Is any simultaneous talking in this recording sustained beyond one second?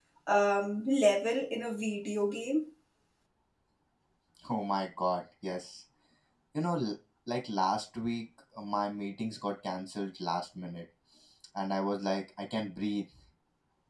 No

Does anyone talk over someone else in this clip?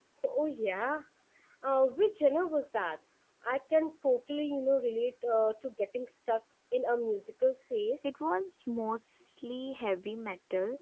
No

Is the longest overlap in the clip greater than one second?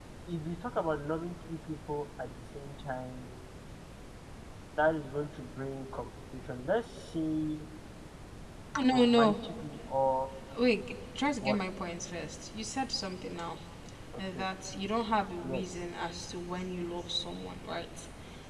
No

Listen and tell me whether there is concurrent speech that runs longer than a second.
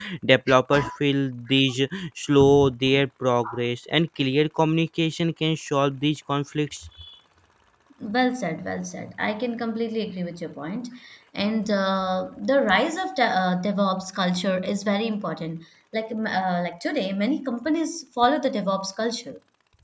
No

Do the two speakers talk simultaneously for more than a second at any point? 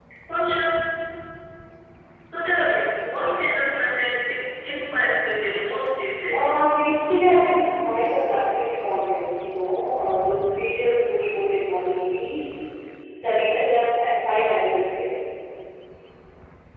No

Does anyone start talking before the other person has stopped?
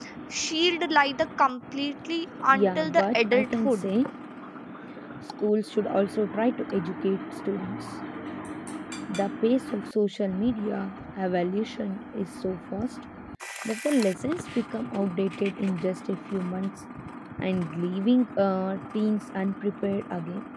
Yes, from 2.5 s

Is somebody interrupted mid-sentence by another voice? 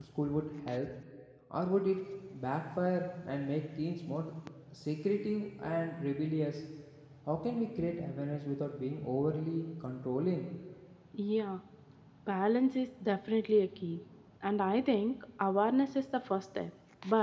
No

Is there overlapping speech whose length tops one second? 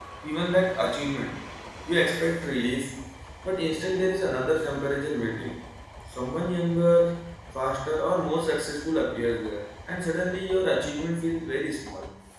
No

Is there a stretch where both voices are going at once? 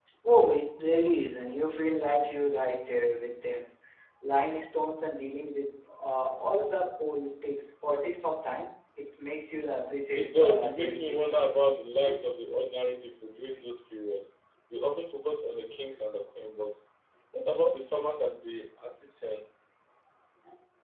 Yes, from 10.2 s

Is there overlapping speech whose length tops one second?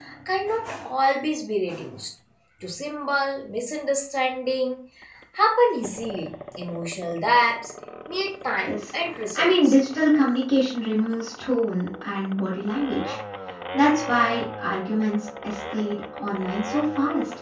No

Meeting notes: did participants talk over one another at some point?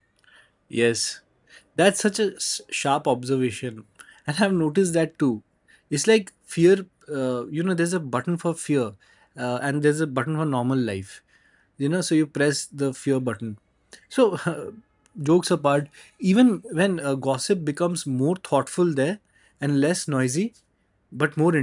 No

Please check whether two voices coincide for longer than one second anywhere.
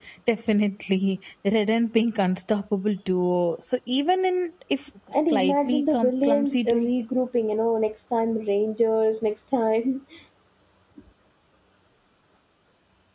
Yes, from 5.3 s

